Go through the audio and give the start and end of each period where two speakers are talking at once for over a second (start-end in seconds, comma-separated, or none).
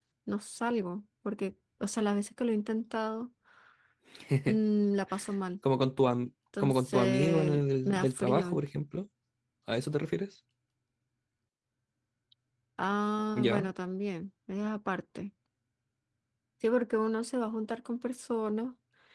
6.6-8.6